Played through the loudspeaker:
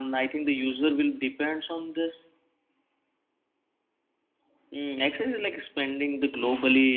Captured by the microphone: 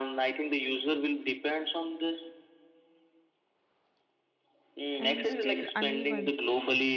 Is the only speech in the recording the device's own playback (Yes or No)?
No